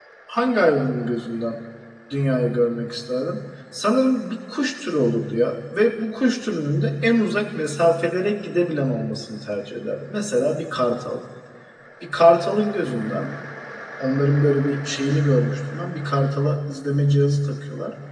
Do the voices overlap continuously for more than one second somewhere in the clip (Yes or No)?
No